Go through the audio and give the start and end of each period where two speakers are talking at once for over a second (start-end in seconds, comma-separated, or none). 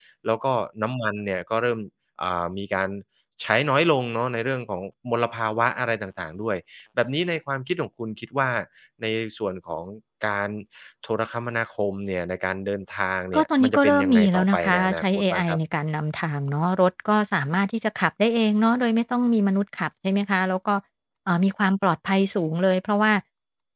13.3-15.6